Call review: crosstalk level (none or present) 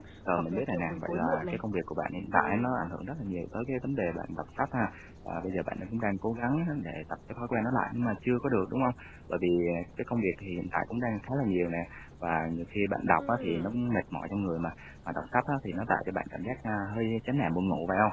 present